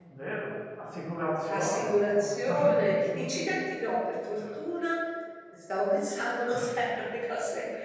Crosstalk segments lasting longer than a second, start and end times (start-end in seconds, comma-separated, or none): 1.5-3.1